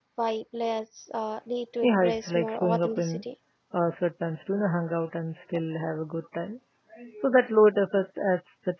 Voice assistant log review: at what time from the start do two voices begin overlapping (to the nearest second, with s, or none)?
2 s